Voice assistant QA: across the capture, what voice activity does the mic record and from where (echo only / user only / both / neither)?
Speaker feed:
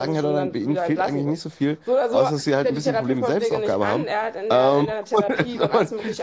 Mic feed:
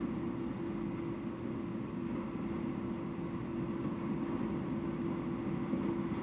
neither